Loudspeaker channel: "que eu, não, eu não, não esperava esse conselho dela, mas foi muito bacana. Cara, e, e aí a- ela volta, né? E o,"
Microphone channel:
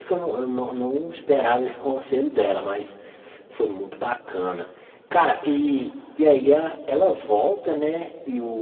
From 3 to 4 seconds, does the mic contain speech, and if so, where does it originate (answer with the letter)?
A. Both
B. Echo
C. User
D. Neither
B